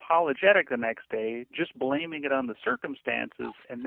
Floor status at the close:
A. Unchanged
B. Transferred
A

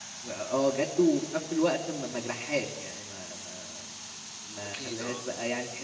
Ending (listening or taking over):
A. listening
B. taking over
A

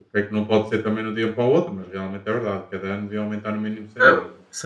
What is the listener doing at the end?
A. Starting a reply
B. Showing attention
A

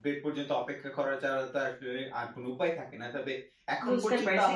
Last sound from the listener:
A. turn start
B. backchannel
A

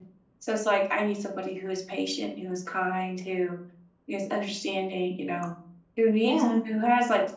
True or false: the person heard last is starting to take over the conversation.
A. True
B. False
B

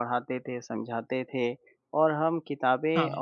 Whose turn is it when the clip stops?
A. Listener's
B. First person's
B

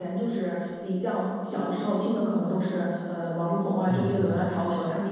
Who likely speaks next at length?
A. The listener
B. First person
B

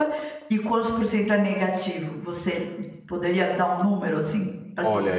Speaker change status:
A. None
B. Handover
B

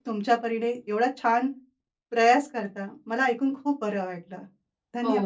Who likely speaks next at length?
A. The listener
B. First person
A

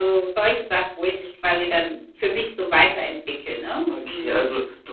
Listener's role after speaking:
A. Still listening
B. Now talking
B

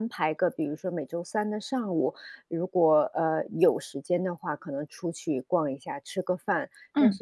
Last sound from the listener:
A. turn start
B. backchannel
B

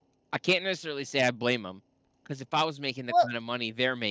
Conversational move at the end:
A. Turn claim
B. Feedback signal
B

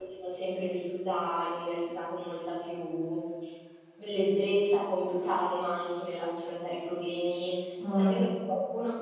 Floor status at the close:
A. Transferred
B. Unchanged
B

